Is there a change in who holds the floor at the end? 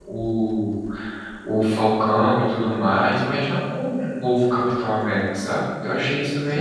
Yes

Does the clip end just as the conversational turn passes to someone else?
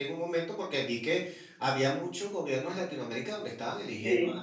No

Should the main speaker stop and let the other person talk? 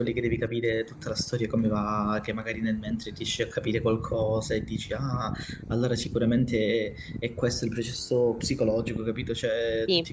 No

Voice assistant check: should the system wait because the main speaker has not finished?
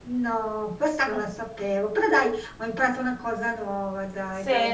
No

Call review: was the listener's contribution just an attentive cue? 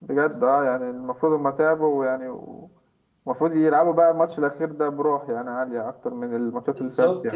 No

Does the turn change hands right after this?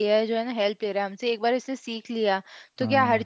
No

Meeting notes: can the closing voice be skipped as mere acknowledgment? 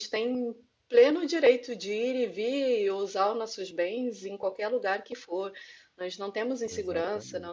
Yes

